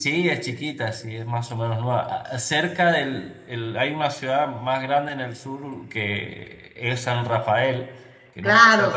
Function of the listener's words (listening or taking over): taking over